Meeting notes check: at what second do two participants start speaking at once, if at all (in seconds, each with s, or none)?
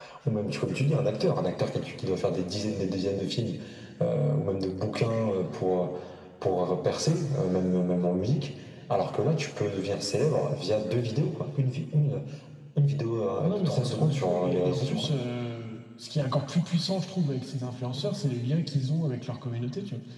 13.4 s